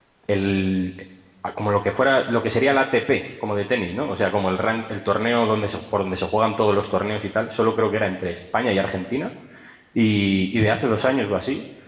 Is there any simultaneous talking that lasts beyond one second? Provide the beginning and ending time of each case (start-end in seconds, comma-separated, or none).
none